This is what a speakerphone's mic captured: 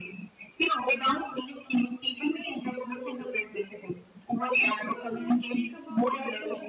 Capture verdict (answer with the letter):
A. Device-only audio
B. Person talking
B